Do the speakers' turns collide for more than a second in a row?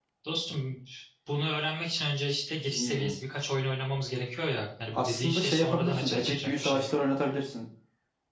Yes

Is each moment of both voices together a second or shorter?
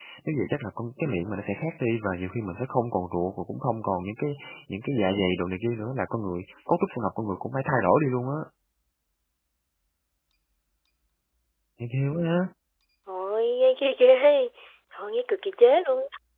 Yes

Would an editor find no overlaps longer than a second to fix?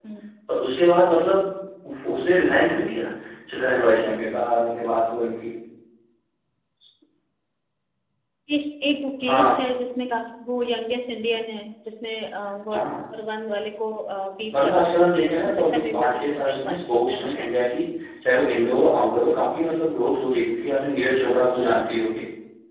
No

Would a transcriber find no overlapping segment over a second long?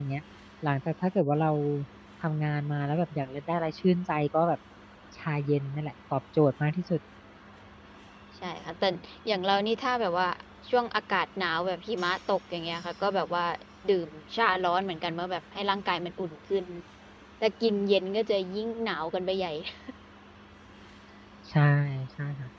Yes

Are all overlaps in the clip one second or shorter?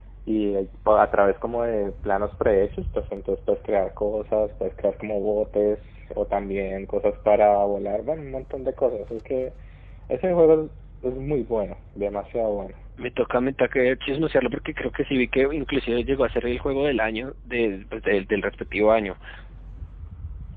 Yes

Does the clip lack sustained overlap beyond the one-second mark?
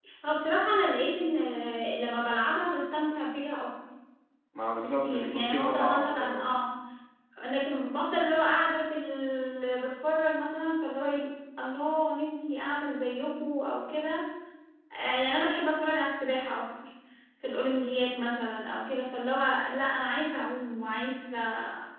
No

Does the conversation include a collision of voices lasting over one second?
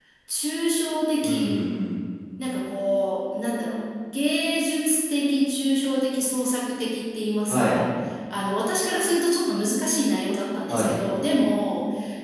No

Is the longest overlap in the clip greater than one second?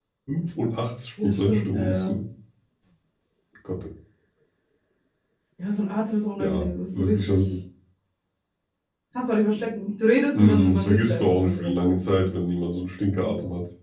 Yes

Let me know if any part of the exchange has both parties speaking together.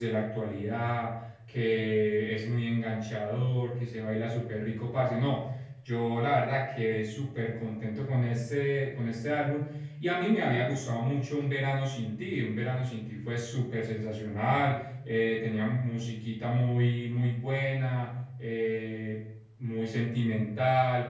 No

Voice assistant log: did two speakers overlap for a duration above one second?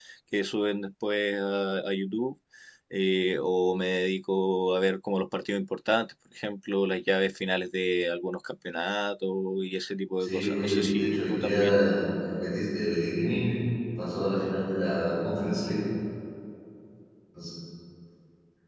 Yes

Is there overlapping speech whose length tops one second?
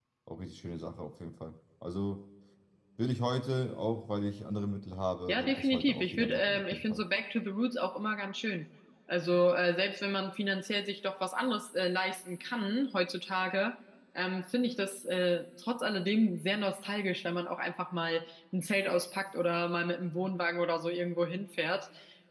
Yes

